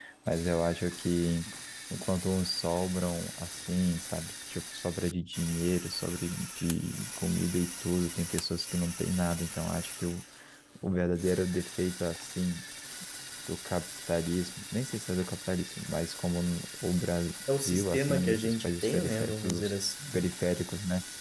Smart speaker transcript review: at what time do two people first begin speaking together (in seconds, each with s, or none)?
17.4 s